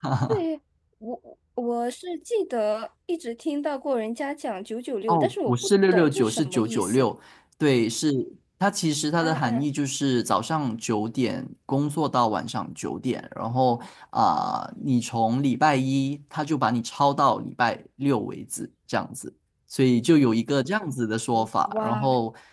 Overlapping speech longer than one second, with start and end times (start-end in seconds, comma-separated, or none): 5.1-7.0